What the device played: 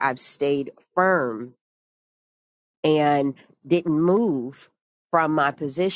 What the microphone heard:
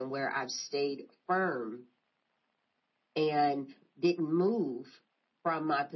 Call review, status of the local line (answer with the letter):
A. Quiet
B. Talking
A